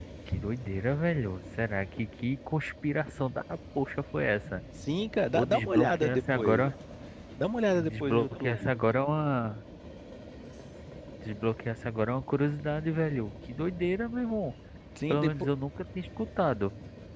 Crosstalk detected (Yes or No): Yes